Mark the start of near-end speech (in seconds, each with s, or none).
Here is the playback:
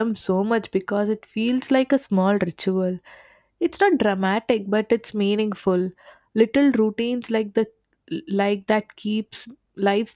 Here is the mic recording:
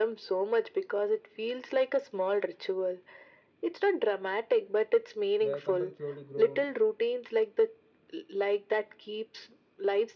5.4 s